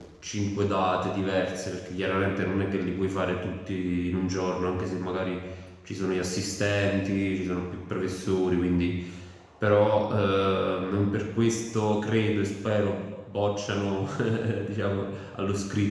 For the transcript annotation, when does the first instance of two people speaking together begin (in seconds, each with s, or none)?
none